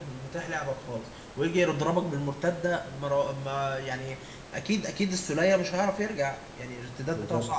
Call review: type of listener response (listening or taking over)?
listening